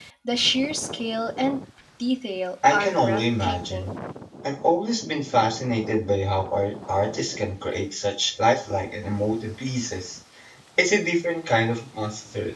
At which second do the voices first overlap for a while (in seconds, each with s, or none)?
2.7 s